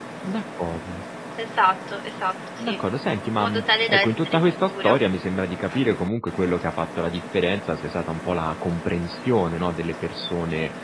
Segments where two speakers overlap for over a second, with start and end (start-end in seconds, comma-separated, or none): 3.4-4.9